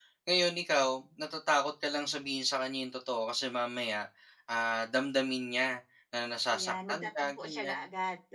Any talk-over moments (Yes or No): Yes